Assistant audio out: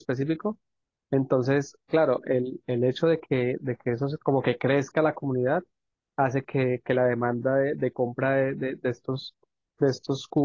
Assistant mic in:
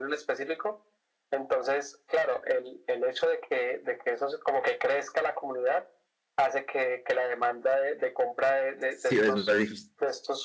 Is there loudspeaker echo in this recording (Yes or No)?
Yes